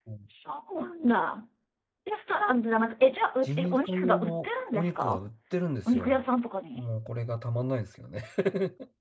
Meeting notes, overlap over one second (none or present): present